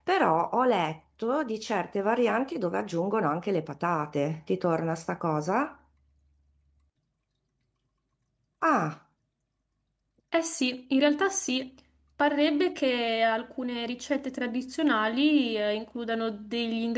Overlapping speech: No

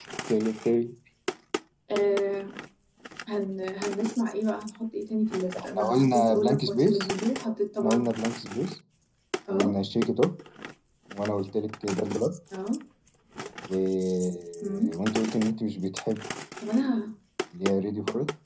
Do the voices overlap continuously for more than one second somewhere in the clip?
Yes, from 5.6 s

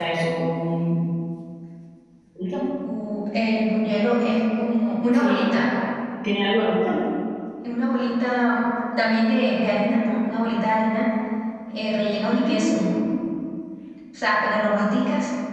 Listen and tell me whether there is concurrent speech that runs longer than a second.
No

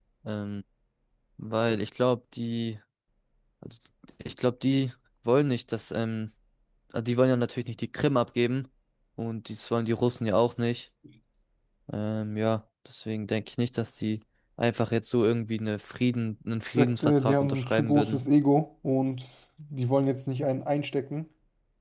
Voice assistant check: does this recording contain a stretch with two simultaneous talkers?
Yes, from 16.7 s

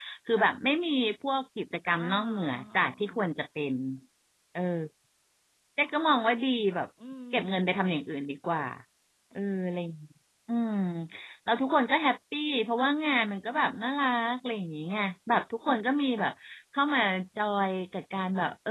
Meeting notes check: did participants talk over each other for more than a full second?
Yes, from 2.0 s

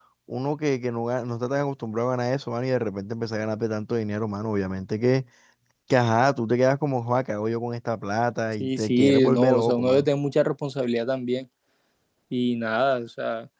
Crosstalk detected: Yes, from 8.5 s

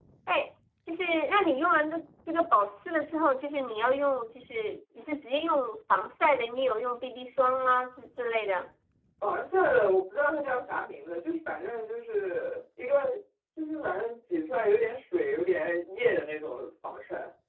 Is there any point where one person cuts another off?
No

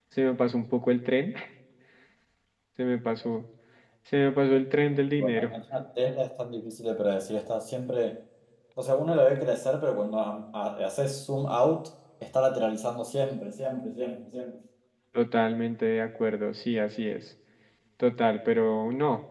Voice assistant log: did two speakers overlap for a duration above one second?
No

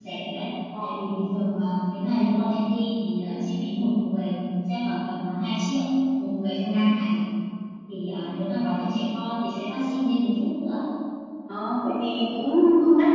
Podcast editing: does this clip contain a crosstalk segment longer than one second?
No

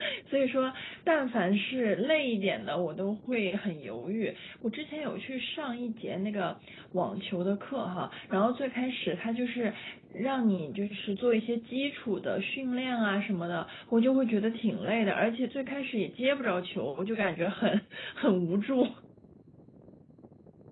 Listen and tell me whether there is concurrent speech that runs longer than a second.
No

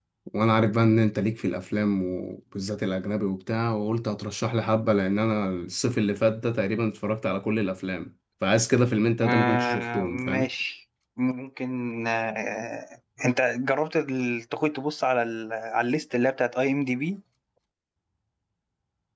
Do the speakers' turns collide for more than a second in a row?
Yes, from 9.2 s

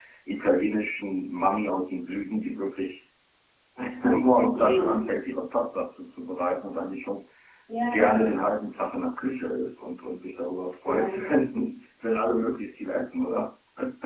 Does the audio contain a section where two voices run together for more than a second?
No

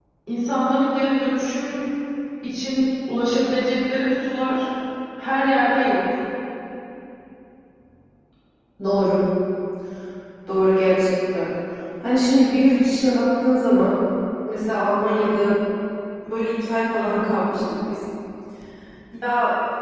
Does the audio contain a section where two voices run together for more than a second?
No

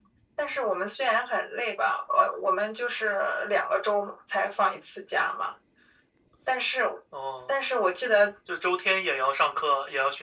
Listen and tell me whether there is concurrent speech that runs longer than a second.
No

